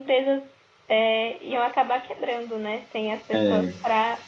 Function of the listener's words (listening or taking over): listening